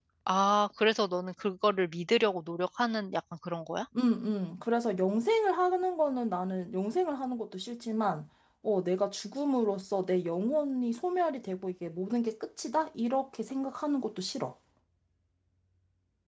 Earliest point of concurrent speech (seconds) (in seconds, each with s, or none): none